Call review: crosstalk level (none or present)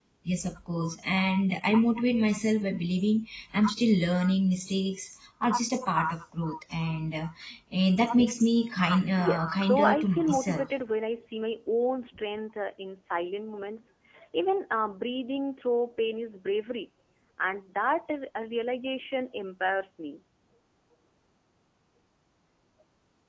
present